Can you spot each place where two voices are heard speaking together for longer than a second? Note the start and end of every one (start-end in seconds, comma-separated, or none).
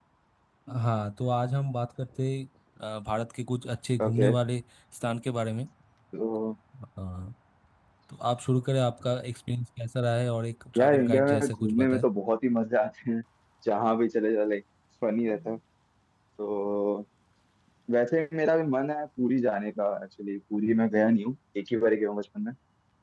10.8-12.0